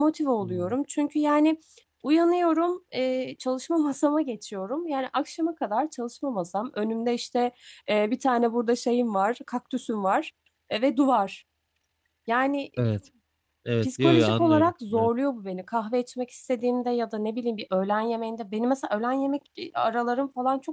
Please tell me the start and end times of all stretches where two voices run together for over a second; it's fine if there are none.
13.8-15.1

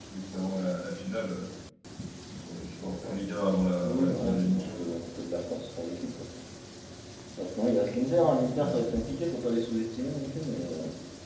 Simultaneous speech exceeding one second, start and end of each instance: 3.8-5.1

